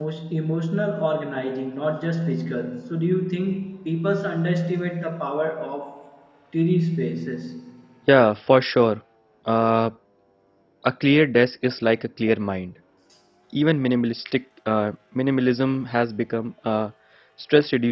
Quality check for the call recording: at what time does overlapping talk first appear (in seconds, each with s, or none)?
none